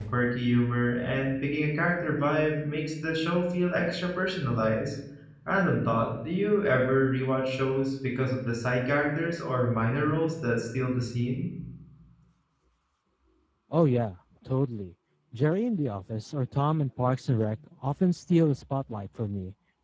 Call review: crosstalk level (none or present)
none